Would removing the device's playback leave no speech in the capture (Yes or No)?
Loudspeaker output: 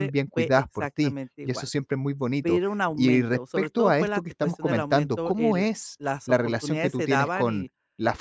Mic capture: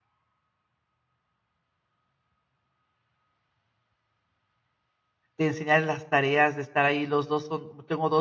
No